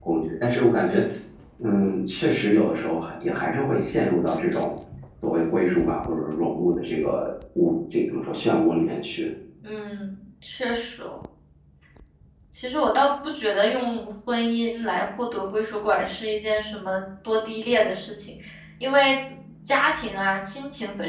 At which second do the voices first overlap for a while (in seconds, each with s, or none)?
none